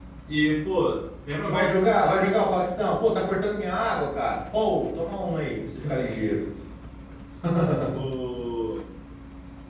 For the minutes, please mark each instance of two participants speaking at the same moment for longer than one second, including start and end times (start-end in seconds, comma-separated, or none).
none